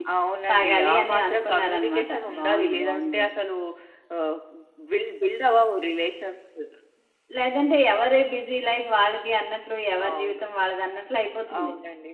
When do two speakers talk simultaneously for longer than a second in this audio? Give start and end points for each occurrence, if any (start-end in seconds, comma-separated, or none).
0.5-3.2